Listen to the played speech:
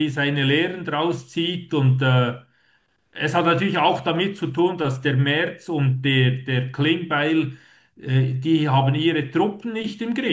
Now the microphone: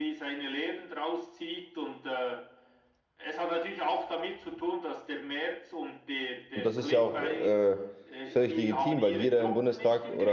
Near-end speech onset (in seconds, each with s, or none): 6.5 s